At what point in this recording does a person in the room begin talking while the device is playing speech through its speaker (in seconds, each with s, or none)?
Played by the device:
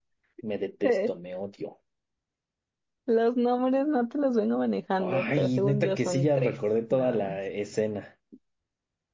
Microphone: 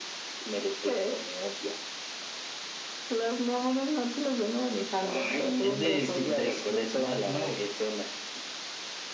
5.6 s